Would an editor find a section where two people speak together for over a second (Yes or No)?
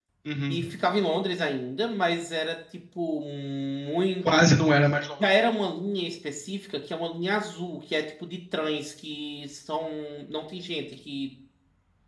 No